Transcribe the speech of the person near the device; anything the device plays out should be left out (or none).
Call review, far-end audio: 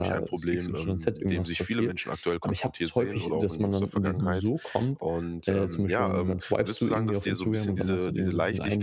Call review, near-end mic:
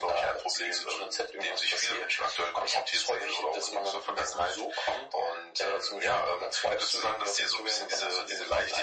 none